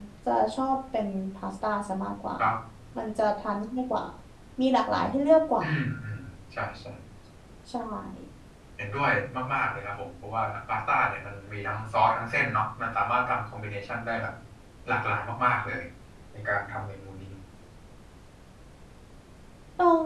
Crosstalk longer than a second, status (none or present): none